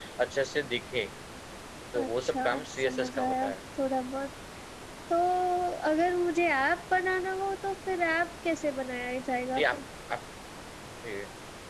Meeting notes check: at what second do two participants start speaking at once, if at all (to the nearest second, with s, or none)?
2 s